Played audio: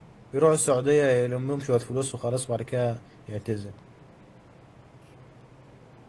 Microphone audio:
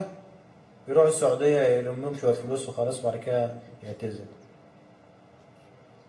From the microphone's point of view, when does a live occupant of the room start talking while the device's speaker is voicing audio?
none

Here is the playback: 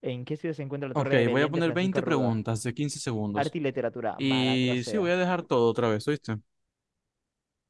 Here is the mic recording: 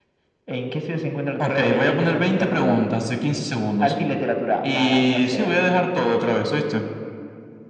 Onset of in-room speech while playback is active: none

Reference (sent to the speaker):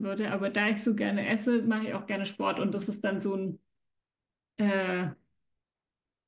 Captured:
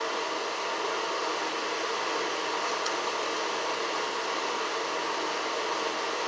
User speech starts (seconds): none

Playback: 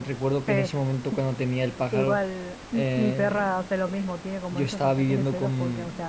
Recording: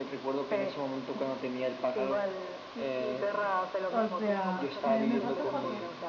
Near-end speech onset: 3.9 s

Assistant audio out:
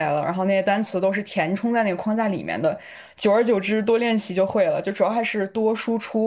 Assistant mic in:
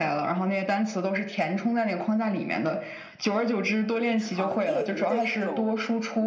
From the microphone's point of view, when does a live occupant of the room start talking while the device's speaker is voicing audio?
3.9 s

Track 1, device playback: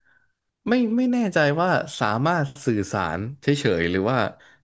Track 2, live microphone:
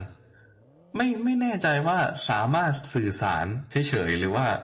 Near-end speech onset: none

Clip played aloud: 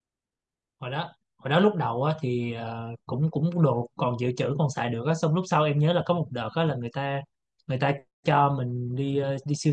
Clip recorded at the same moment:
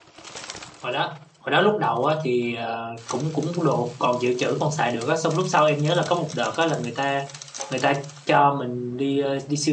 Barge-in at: none

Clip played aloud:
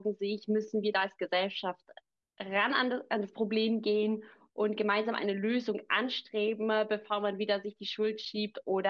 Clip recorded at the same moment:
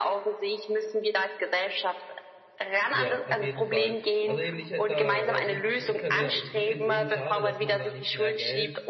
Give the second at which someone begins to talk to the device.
2.9 s

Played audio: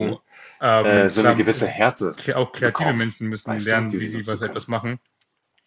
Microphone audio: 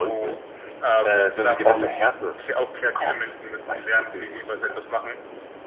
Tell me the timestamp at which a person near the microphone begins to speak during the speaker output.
1.6 s

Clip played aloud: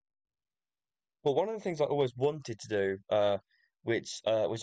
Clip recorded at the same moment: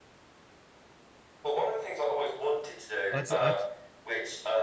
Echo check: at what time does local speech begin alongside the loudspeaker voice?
3.1 s

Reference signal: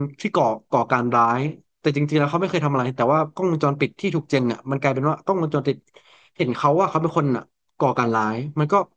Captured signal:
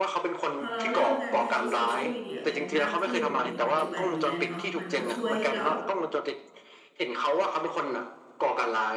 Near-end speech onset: 0.6 s

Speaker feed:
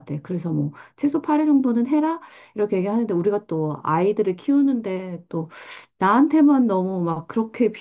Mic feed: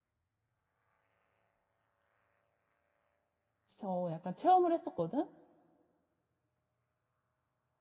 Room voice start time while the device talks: 3.7 s

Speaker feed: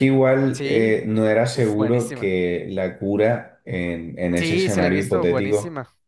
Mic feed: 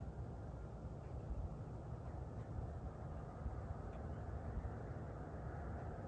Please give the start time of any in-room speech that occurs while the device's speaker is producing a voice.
none

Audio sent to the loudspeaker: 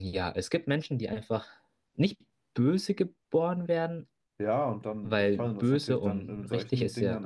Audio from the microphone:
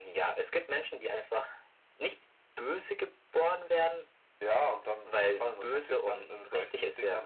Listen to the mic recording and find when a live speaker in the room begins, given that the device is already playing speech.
none

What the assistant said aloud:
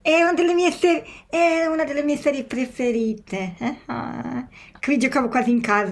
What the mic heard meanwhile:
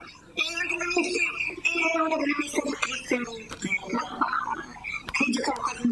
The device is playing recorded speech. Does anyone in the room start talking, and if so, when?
none

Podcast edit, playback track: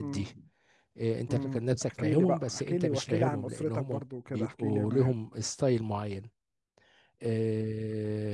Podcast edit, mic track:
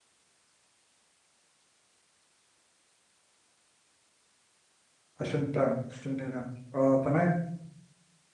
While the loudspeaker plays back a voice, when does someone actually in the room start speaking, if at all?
5.2 s

